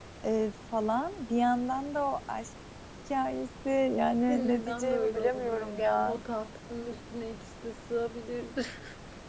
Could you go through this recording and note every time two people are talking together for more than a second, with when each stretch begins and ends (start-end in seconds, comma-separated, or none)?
4.3-6.2